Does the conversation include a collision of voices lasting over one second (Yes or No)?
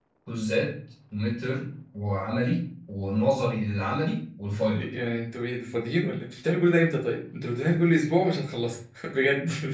No